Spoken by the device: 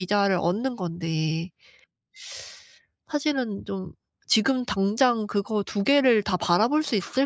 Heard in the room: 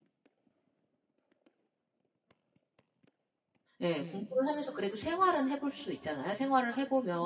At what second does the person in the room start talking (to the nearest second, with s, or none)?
4 s